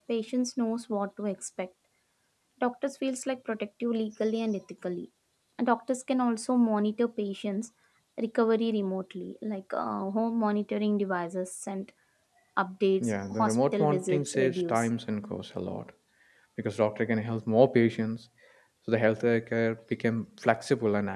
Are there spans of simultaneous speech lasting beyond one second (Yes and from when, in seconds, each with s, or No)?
Yes, from 13.0 s